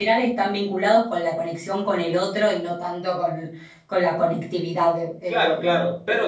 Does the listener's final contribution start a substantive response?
Yes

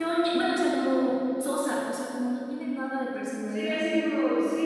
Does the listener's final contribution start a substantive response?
Yes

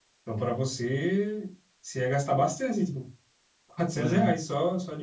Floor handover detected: No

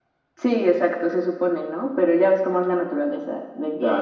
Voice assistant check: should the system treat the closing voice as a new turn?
Yes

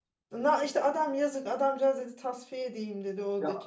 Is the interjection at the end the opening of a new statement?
No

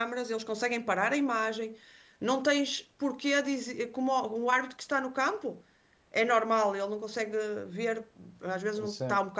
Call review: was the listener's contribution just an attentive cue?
Yes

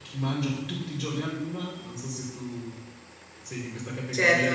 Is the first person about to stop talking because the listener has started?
Yes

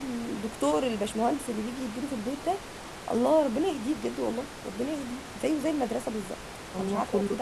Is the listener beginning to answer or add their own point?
Yes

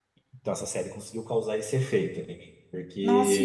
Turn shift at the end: Yes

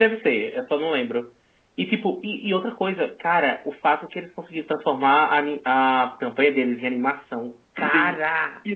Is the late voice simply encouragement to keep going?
No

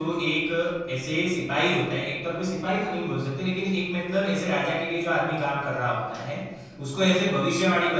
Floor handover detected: No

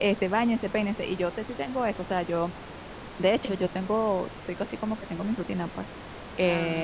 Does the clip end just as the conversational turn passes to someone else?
No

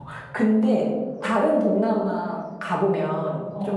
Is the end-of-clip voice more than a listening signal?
No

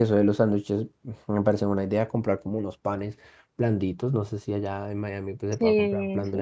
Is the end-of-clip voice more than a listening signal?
No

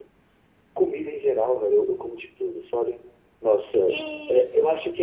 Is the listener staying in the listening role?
Yes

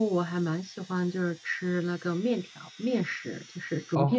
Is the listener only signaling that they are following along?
No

